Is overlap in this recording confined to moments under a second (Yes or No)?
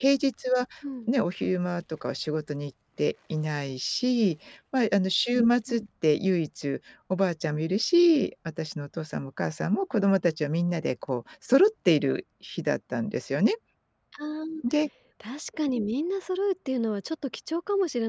Yes